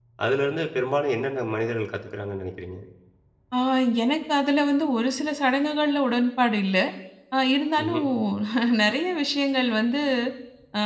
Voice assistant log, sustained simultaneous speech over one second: none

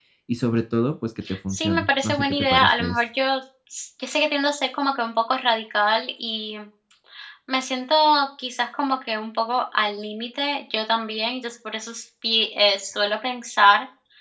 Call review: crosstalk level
present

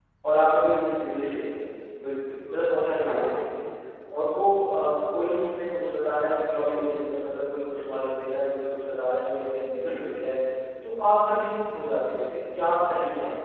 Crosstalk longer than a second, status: none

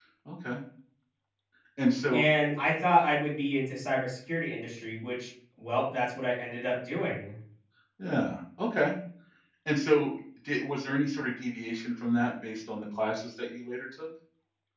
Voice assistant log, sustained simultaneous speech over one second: none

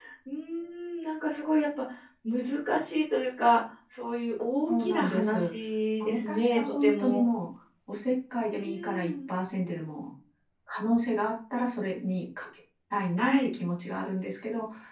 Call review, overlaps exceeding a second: present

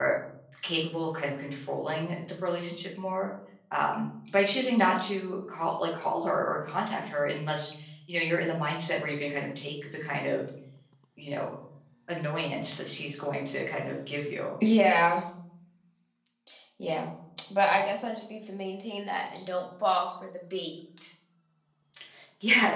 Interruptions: none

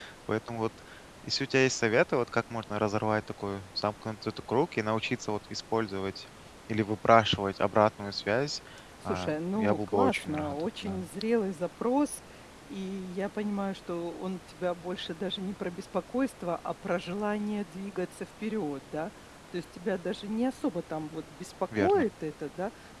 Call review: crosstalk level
present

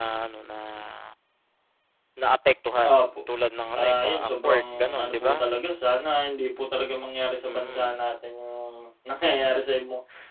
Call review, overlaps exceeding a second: present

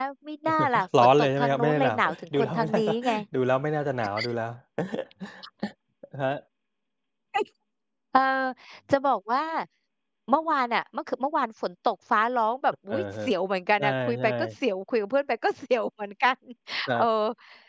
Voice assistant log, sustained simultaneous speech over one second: present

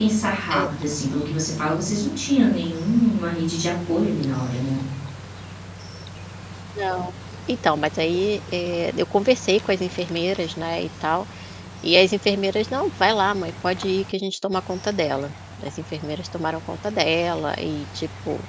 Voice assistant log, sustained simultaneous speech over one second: none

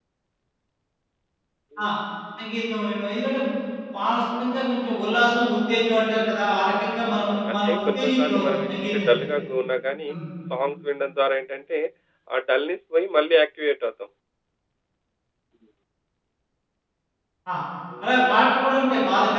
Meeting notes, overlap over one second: present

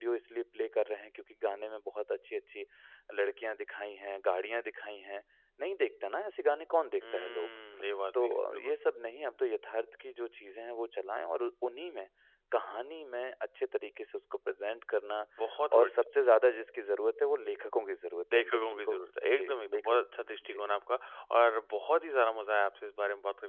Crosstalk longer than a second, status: present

